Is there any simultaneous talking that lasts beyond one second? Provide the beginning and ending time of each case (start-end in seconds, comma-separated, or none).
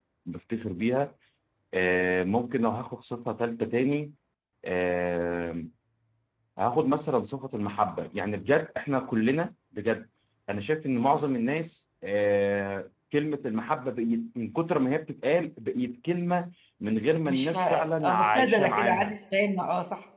17.3-19.1